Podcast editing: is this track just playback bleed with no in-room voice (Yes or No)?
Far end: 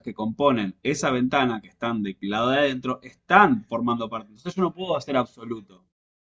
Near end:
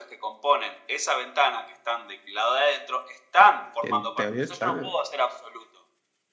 No